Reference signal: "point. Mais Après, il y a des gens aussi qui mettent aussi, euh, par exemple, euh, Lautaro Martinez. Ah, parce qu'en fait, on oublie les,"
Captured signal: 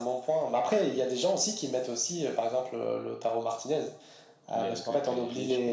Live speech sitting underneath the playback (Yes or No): Yes